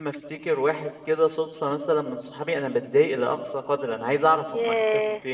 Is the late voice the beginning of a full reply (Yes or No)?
No